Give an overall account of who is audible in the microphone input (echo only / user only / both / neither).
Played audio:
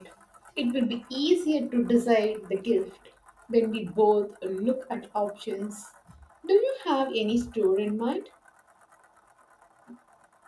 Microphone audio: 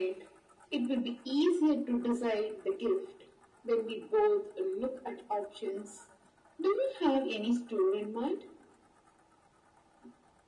echo only